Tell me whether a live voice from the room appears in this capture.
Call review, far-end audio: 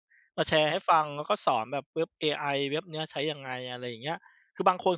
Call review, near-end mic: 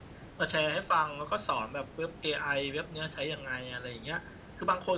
No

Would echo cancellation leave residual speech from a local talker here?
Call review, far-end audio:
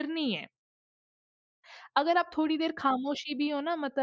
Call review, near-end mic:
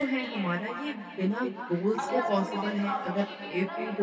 Yes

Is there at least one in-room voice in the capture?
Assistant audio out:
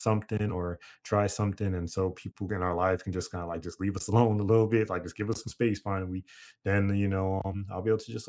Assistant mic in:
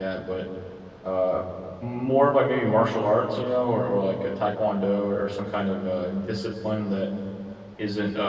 Yes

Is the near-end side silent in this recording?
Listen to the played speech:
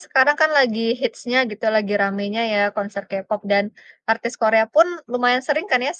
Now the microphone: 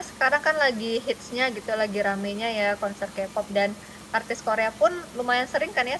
Yes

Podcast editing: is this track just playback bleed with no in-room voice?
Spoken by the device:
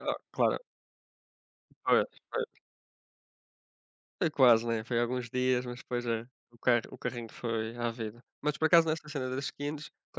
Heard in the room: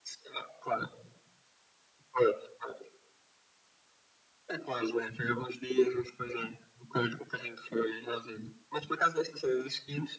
Yes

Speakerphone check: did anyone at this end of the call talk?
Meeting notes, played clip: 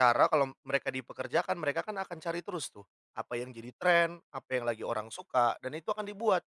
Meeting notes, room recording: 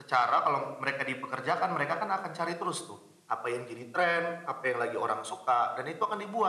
No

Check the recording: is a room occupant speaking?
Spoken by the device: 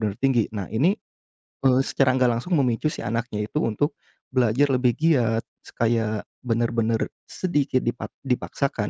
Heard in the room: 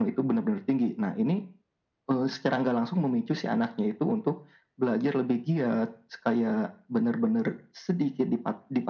No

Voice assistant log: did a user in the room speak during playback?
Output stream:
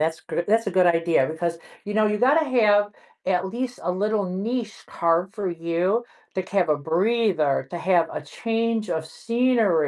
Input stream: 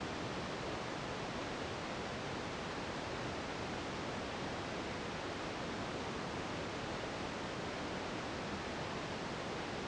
No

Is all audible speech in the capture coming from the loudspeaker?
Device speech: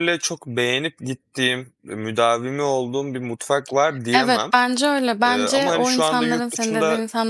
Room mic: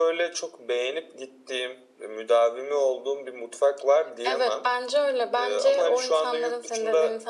Yes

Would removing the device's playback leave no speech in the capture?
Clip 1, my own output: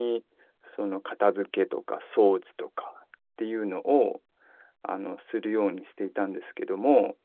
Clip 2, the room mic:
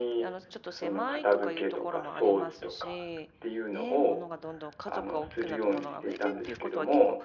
No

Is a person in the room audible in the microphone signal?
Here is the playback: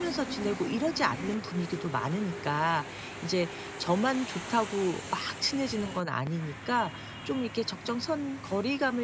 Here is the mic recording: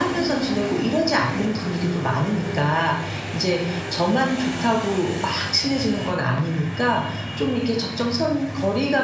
No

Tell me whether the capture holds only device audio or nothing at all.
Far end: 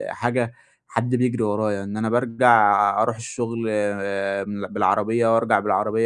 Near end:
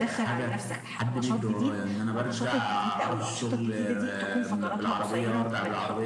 No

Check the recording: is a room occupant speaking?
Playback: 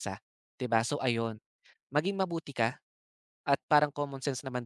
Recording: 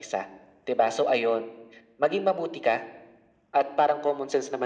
No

